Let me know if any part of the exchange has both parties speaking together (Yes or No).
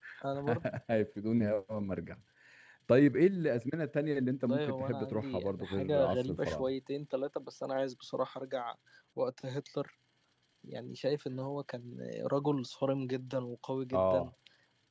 Yes